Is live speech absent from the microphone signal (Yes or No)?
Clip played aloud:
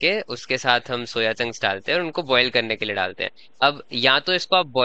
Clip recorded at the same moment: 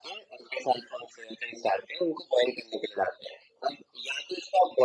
Yes